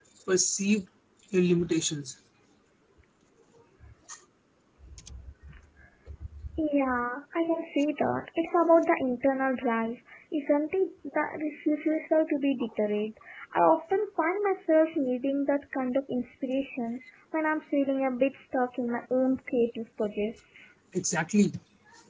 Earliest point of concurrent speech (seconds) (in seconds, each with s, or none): none